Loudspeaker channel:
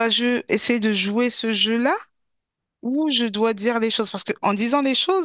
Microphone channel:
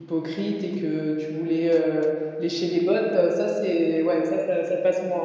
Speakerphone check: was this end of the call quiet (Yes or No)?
No